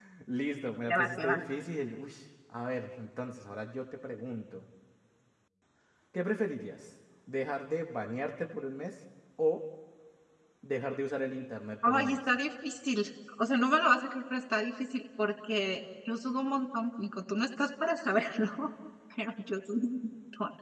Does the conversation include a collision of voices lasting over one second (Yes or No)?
No